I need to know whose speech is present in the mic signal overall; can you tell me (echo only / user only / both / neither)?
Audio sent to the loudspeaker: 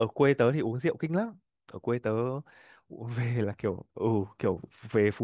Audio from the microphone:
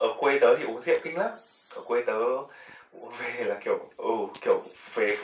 echo only